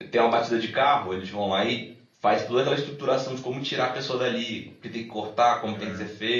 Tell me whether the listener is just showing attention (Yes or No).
Yes